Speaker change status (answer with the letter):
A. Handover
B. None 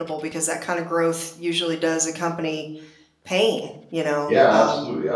A